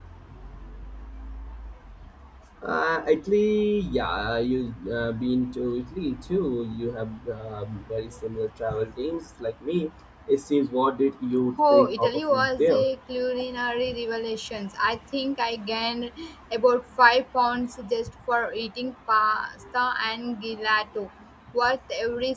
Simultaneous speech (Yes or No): Yes